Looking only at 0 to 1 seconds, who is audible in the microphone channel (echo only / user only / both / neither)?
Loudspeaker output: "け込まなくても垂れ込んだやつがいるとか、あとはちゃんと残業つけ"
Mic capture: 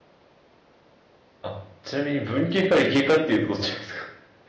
neither